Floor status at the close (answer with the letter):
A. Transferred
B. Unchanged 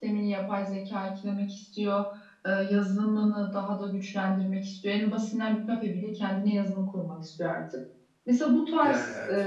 B